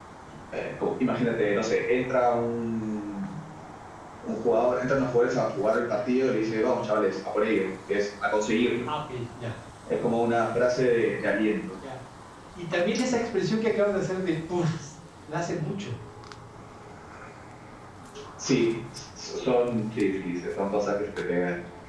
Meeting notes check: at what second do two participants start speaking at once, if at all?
none

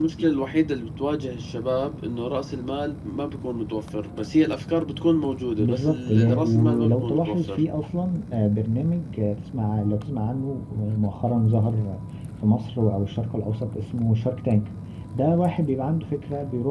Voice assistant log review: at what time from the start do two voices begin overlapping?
5.6 s

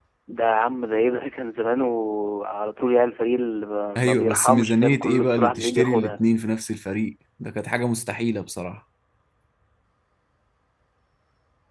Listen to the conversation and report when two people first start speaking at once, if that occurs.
4.0 s

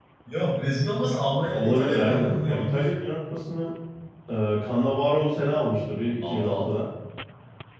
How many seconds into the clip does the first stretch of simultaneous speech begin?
1.5 s

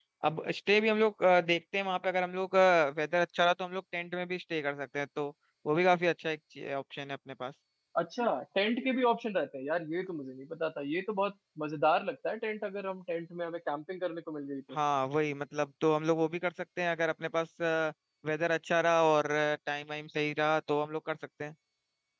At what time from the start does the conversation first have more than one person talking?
none

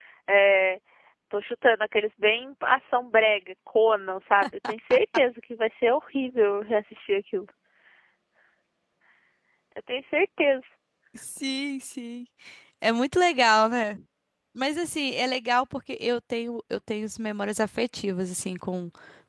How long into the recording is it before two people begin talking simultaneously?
none

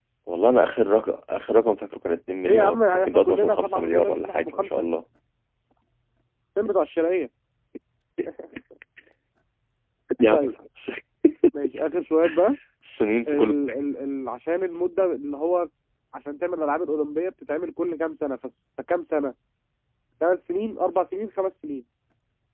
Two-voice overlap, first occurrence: 2.5 s

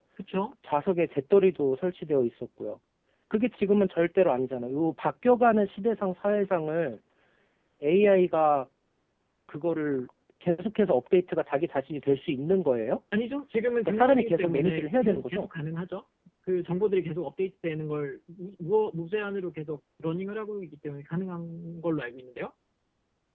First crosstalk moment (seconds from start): 13.8 s

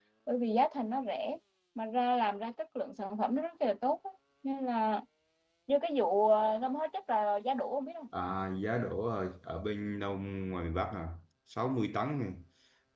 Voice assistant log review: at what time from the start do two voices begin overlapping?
none

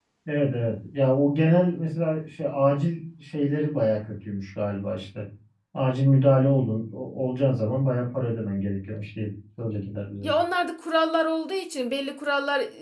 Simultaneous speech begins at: none

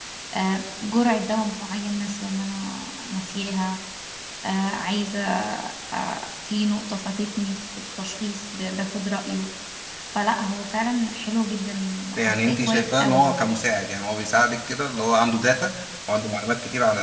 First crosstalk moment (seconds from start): 12.2 s

